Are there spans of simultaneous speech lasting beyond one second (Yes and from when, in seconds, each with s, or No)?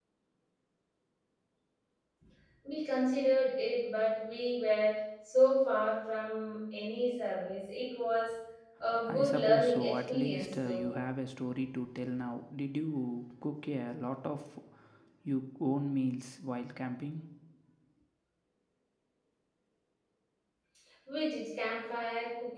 Yes, from 9.1 s